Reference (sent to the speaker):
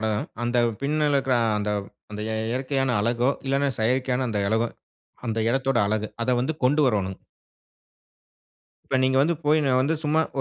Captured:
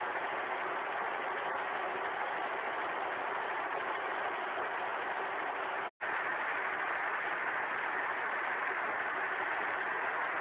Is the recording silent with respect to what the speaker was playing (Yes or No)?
Yes